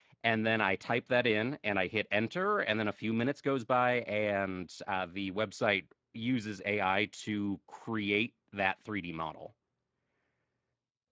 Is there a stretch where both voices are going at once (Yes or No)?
No